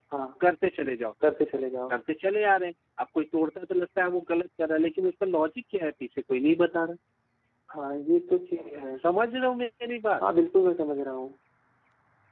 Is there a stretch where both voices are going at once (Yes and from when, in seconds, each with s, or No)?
No